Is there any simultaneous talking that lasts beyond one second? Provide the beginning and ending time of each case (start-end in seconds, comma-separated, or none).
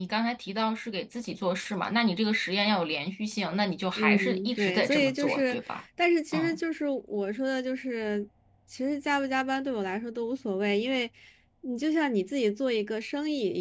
4.0-5.6